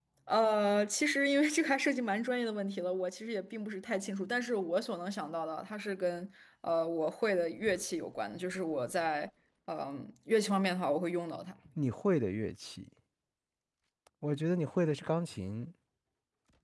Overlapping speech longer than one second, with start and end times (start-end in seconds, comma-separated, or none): none